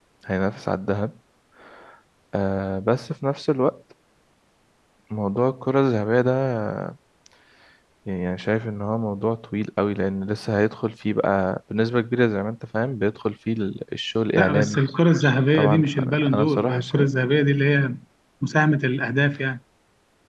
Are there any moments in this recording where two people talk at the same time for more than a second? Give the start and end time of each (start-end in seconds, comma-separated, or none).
15.5-17.0